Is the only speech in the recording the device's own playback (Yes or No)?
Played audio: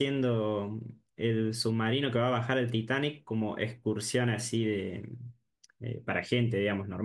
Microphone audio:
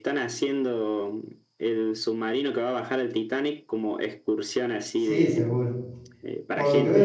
No